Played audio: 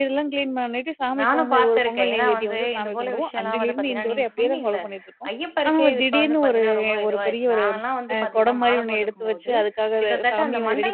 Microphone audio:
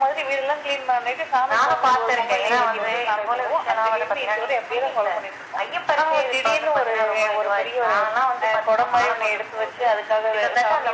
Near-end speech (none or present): present